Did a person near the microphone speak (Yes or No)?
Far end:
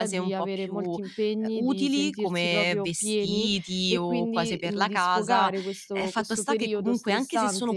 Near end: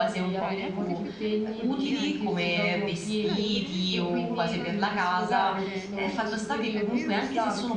Yes